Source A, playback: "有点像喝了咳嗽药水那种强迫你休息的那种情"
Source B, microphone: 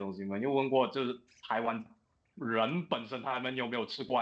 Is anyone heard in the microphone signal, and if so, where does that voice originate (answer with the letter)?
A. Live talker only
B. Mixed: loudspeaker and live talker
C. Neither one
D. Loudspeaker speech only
A